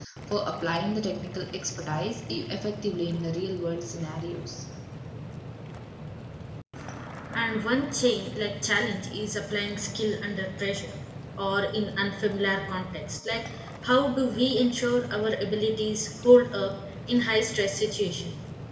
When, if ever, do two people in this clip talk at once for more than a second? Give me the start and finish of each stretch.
none

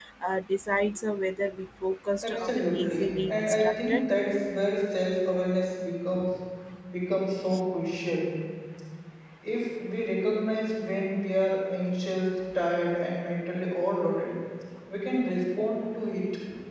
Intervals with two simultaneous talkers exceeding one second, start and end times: 2.2-4.0

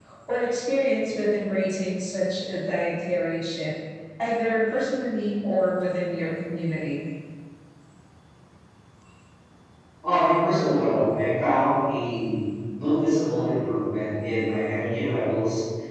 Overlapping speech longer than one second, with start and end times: none

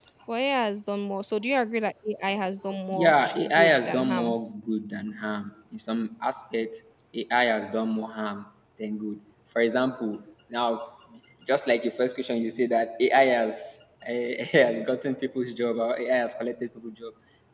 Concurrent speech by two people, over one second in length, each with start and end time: 2.9-4.4

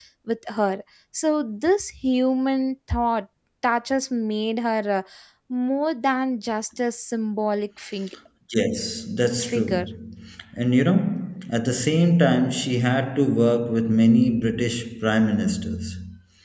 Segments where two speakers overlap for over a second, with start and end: none

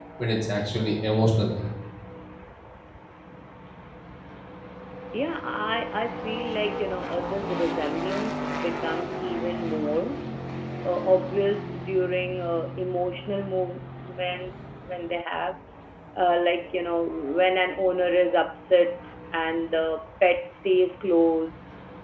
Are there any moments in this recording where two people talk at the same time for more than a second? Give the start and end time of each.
none

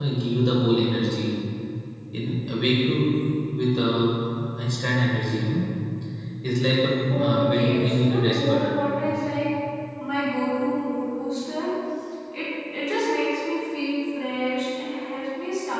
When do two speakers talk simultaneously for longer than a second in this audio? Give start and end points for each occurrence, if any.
7.1-8.8

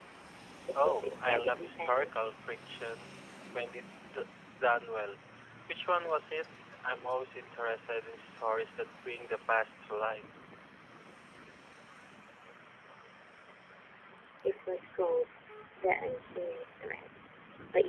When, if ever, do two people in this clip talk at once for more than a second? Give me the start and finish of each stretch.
0.8-2.3

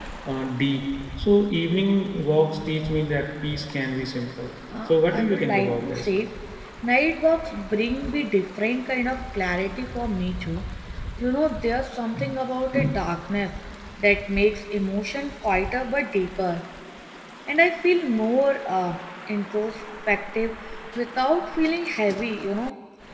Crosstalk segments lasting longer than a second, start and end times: 4.9-6.1

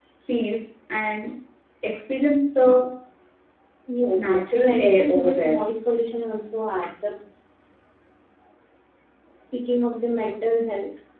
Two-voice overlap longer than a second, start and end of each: 4.1-5.6

